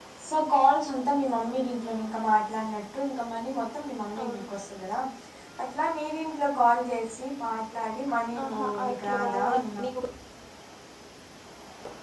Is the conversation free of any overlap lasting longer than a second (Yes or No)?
No